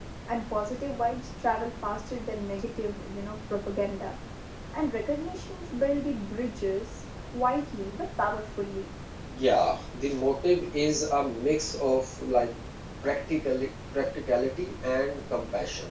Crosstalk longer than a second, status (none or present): none